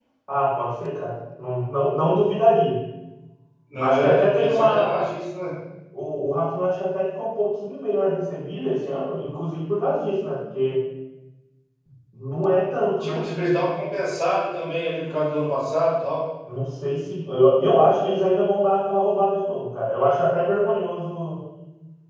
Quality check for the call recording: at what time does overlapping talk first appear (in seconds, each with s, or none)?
3.8 s